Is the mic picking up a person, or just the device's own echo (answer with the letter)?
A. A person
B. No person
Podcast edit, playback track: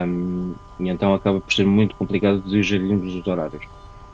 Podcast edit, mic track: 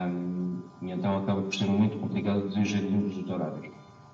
B